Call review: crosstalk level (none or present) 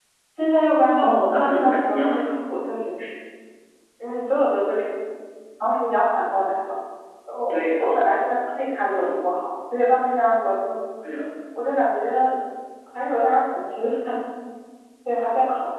present